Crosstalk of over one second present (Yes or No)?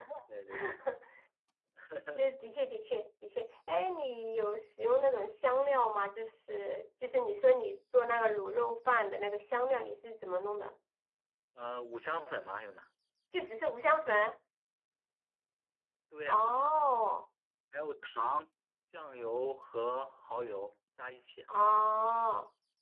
No